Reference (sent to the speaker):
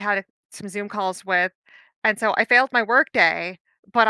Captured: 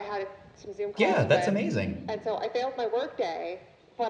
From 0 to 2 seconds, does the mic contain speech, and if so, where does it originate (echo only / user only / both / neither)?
both